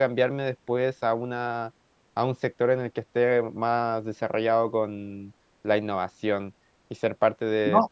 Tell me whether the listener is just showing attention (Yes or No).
Yes